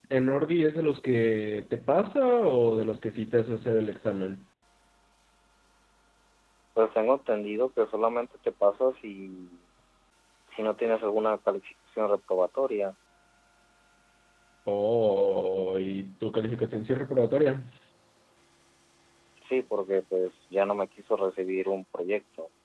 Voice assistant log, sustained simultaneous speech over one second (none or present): none